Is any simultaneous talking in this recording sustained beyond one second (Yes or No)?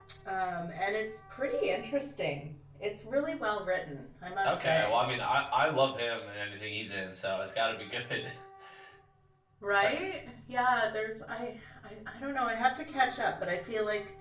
No